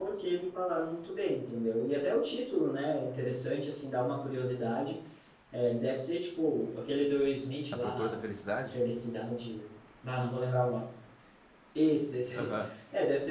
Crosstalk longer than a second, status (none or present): none